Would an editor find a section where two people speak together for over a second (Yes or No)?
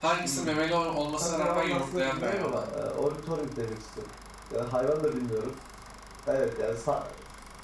Yes